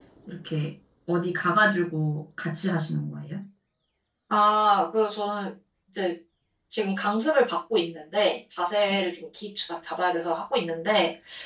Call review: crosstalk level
none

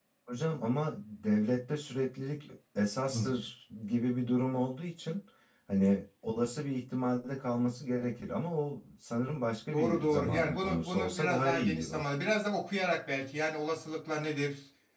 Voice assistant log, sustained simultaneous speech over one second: present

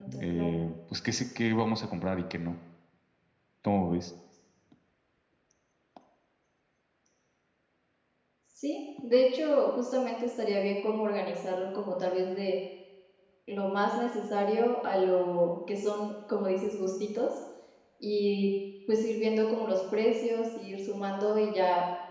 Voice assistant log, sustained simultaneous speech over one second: none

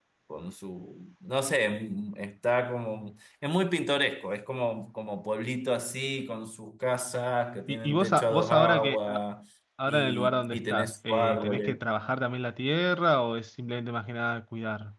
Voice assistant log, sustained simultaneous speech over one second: present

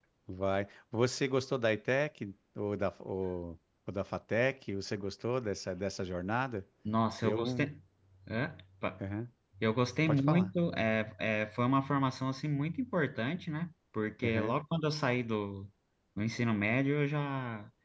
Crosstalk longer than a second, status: none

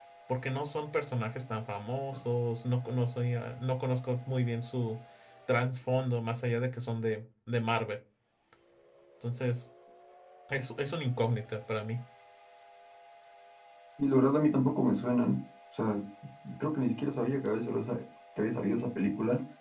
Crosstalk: none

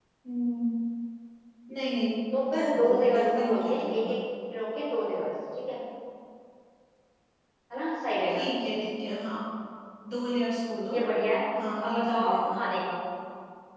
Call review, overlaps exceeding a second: present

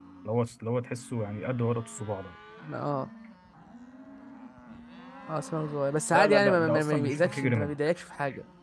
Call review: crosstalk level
present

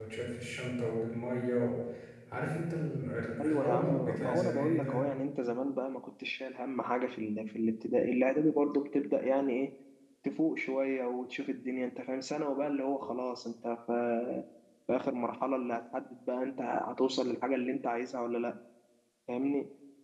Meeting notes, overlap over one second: present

